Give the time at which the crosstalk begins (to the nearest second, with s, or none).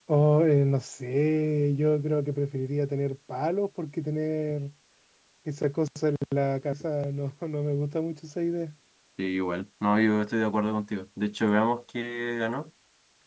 none